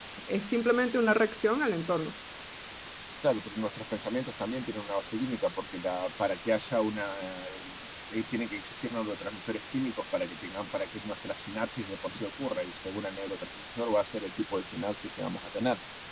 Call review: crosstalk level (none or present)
none